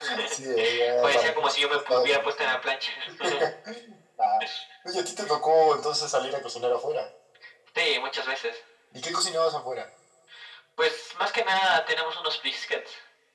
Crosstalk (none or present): present